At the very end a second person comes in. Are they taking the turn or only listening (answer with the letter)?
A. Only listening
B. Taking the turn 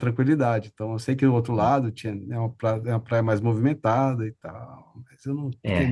B